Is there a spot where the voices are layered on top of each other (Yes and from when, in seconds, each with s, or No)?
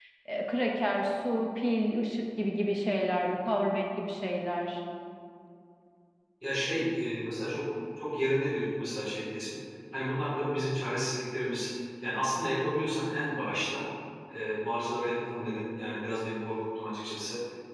No